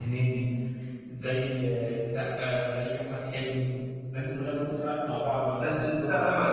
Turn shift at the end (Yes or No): Yes